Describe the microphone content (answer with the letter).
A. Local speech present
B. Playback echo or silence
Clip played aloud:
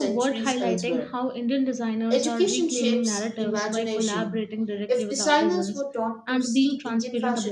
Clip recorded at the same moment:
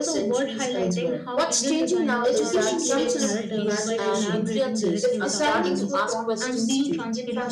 A